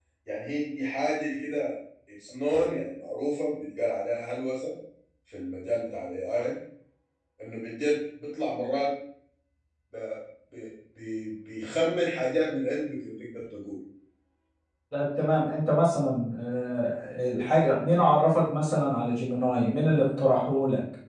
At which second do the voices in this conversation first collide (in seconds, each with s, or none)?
none